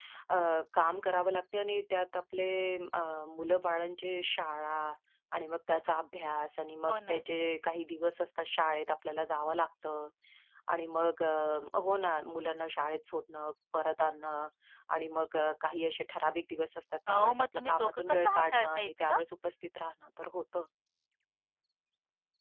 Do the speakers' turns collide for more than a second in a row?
Yes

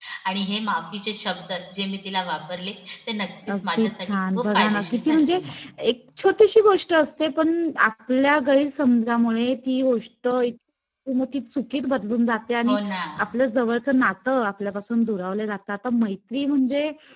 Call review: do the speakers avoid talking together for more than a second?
No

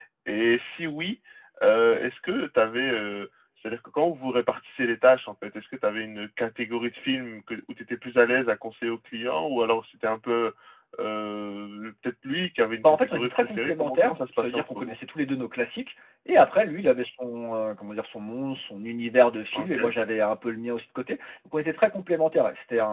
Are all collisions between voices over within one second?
No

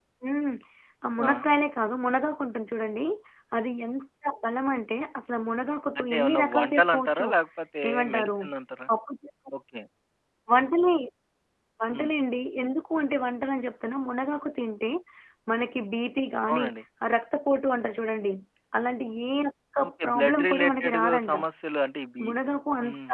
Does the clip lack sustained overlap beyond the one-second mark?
No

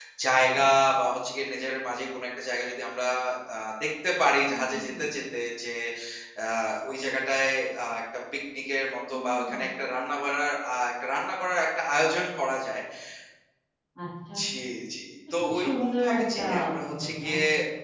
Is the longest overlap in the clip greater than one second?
Yes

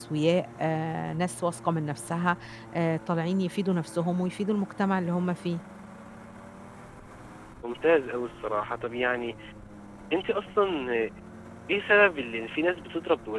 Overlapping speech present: No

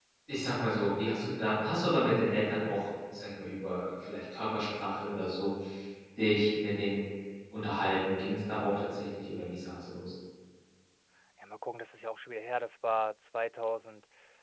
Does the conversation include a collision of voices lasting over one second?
No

